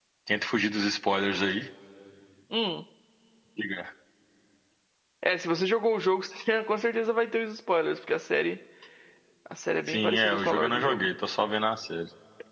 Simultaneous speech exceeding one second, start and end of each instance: 9.9-11.1

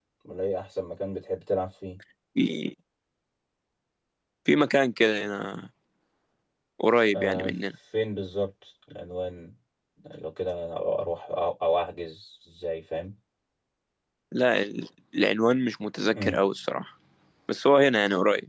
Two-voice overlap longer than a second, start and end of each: none

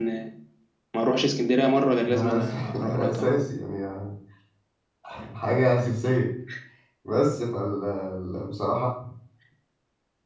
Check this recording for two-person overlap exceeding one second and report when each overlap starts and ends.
2.0-3.3

